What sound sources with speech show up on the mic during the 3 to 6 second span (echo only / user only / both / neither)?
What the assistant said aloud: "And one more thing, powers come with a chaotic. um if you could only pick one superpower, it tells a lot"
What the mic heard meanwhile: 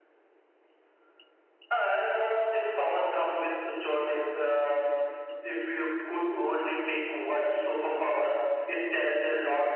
echo only